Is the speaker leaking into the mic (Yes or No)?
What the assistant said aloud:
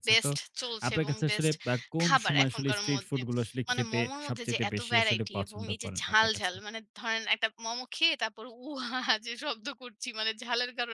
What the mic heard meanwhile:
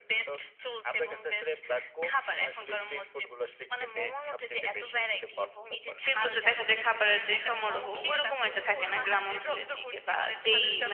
Yes